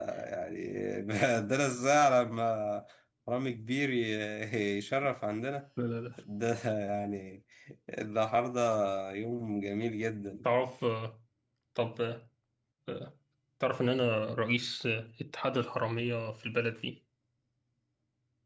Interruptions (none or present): none